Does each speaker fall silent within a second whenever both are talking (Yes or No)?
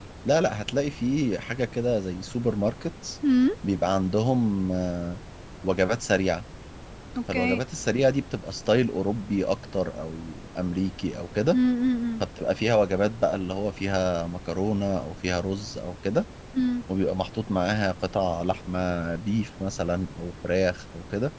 Yes